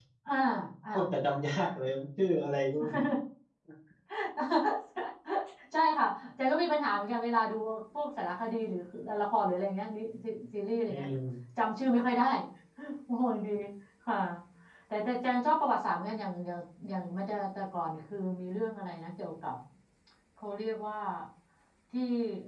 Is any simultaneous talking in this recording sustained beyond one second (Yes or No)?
No